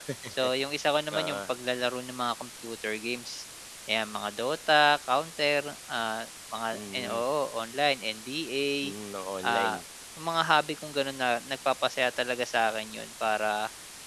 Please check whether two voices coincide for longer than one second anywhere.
No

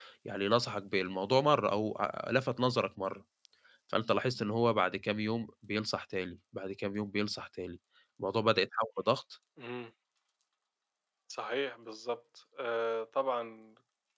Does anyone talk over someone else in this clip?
No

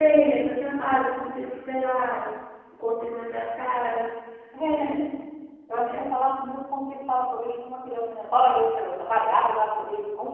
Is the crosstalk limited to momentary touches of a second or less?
Yes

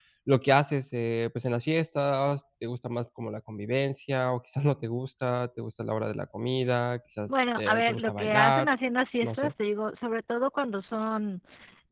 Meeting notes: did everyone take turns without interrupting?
No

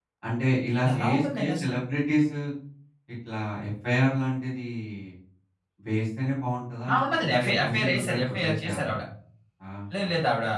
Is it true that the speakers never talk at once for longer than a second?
No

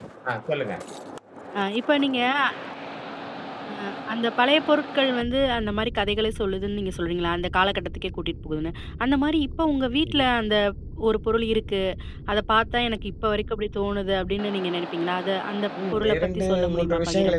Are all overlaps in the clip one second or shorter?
No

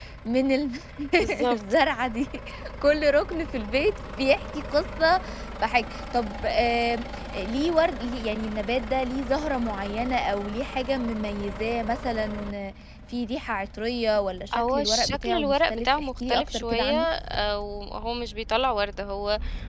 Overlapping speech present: Yes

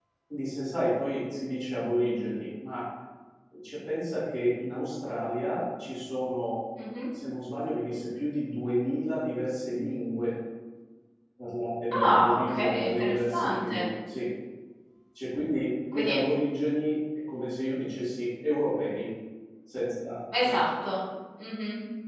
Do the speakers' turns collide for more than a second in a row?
Yes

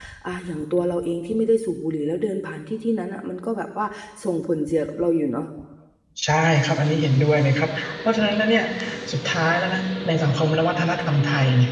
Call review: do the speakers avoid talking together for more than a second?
Yes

